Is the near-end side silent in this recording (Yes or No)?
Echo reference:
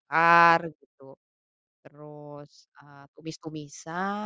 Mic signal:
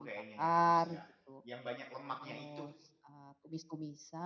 No